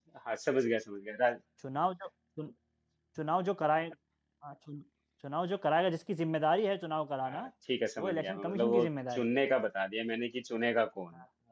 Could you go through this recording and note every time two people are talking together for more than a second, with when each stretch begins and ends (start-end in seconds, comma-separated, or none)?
8.0-9.4